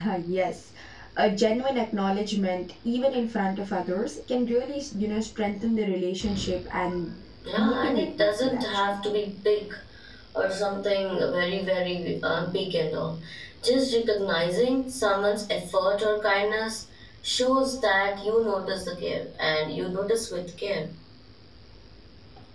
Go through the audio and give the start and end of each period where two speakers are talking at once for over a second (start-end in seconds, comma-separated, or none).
7.6-8.8